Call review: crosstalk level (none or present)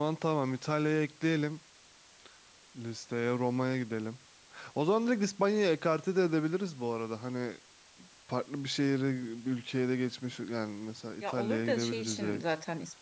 present